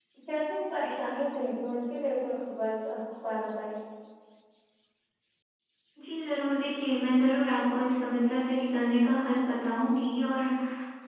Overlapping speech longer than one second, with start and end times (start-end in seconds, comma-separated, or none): none